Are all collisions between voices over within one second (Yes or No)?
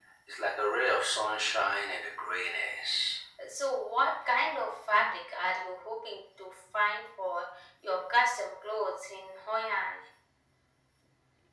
Yes